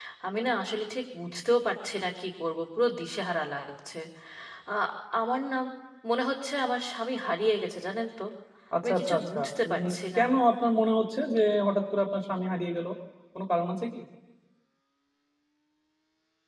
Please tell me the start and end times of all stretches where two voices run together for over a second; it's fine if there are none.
8.8-10.2

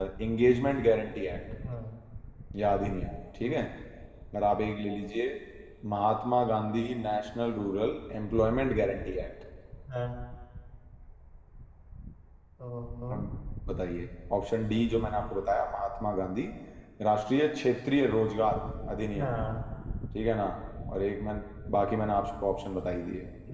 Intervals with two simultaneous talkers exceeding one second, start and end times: none

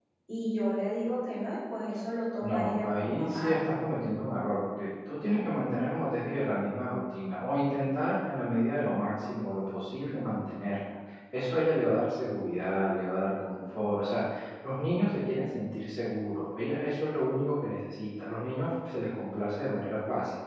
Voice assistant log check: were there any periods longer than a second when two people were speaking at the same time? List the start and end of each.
2.4-3.7

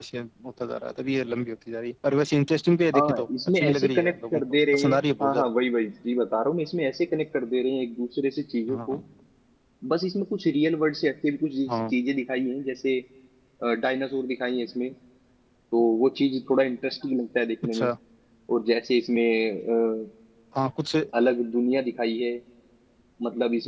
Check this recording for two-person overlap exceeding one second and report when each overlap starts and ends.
2.9-5.5

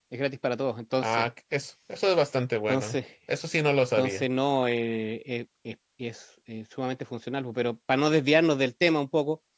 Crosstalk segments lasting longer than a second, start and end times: none

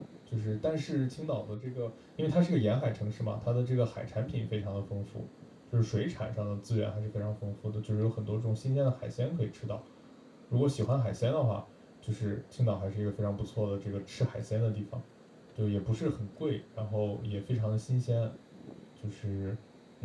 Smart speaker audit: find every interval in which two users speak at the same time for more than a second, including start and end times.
none

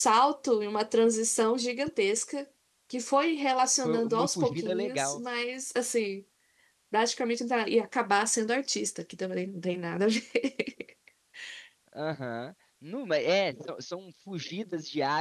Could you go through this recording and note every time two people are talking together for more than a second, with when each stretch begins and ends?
3.8-5.2

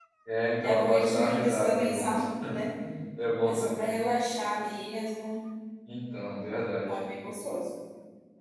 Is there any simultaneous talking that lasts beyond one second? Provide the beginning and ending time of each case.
0.6-2.1

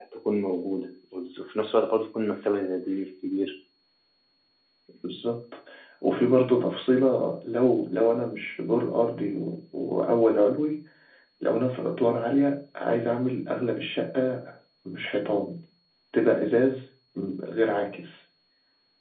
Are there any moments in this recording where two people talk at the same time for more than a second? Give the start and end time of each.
none

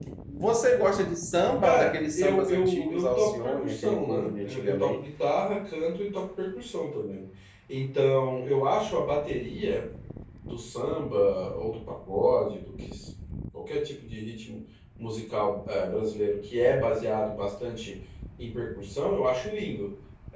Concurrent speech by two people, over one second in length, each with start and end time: 1.6-5.0

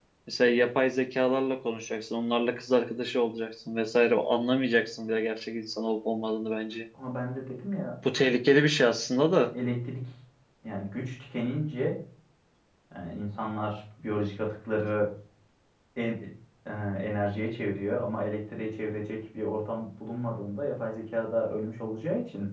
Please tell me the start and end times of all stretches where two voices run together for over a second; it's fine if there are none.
none

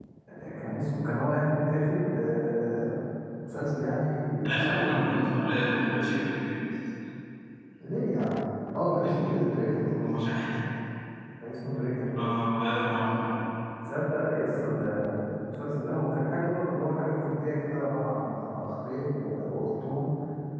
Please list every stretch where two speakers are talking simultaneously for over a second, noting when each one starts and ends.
4.4-5.7

